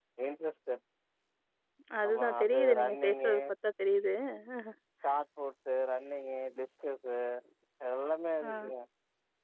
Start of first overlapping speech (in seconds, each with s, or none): 2.1 s